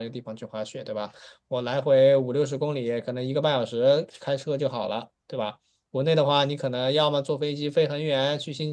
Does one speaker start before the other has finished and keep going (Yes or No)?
No